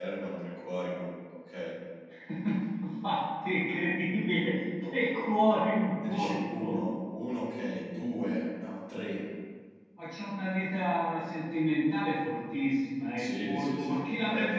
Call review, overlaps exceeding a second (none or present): present